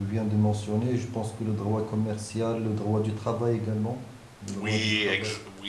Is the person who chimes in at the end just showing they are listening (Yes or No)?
No